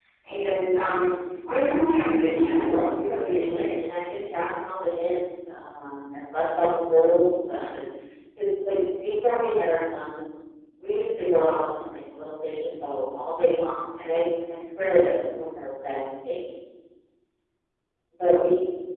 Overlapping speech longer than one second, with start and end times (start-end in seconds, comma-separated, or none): 2.3-3.7